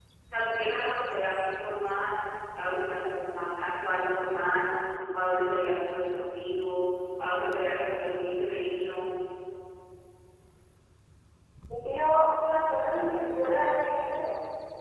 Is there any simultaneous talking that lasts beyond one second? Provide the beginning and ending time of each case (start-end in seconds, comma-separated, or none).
none